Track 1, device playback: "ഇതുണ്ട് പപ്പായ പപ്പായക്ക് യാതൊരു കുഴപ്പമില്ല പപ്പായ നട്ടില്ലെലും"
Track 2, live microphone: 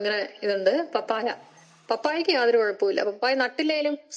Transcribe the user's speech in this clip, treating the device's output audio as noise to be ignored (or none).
none